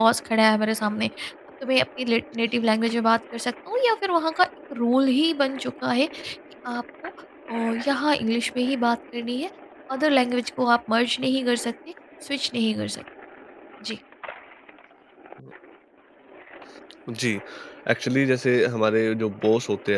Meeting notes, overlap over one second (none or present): none